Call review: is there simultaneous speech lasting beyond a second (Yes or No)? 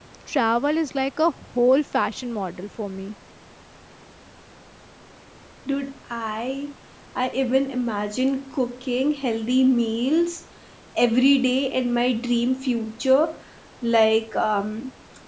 No